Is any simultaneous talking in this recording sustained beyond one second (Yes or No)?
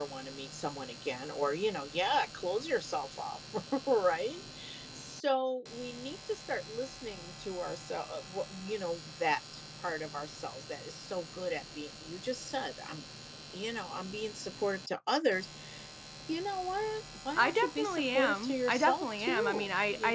Yes